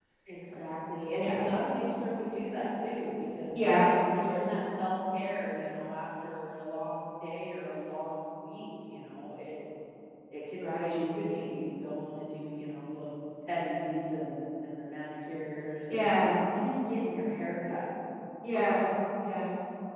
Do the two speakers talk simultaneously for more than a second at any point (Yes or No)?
No